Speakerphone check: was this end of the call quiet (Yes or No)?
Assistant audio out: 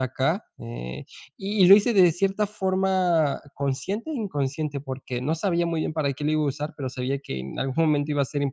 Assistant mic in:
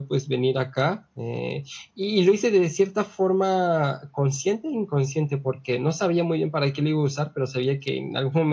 Yes